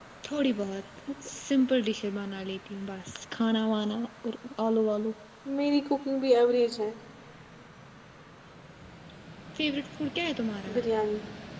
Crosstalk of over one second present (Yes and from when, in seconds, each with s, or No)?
No